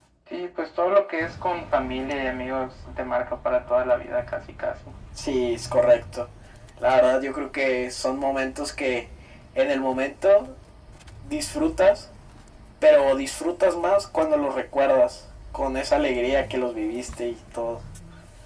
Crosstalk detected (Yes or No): No